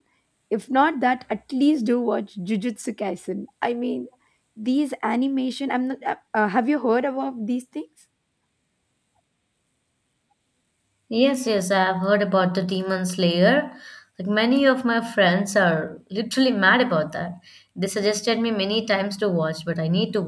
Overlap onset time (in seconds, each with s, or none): none